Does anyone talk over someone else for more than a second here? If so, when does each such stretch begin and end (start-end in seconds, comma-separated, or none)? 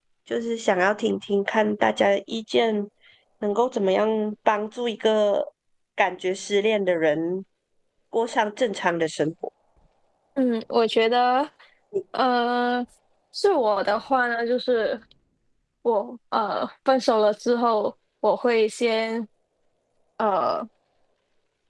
none